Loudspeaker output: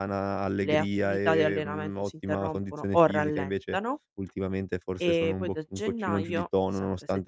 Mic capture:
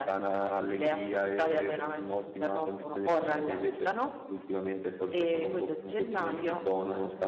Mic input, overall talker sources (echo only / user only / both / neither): echo only